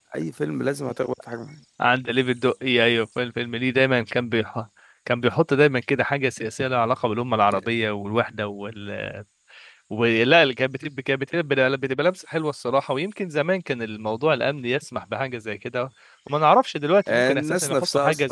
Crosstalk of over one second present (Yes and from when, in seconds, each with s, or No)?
Yes, from 17.1 s